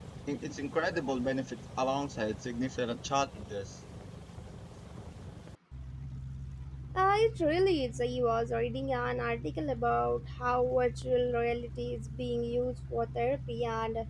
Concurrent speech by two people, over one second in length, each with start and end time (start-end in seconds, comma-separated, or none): none